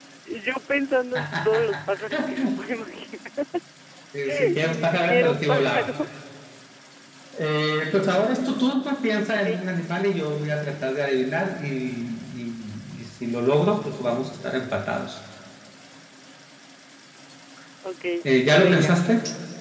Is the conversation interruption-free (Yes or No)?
No